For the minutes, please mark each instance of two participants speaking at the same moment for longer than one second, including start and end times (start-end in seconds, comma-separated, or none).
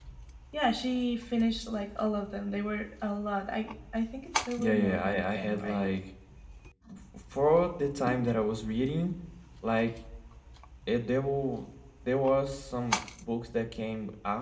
4.6-5.8